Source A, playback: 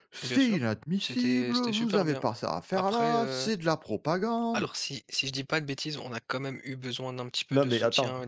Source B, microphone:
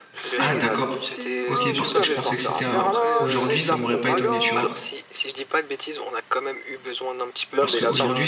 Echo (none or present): present